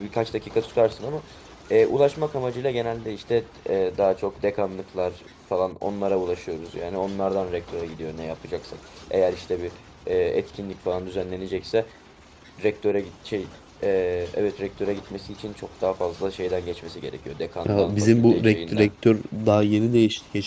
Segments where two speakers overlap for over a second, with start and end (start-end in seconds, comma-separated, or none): 17.6-18.9